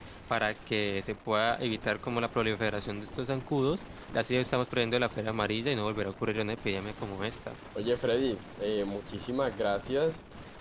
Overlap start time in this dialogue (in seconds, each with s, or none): none